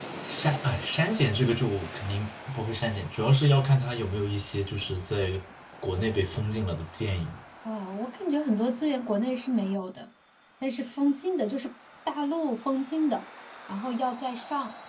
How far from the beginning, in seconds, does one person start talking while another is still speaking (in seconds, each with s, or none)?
none